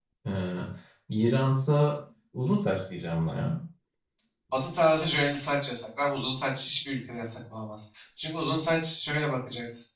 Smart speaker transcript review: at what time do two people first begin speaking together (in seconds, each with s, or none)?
none